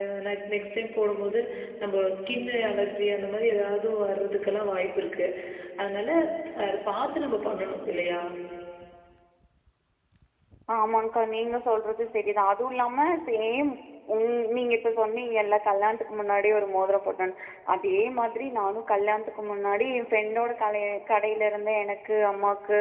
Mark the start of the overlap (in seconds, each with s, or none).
none